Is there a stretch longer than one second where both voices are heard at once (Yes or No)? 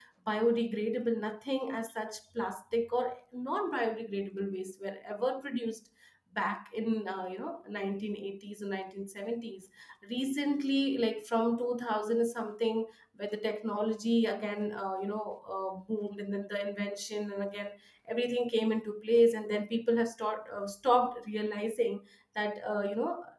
No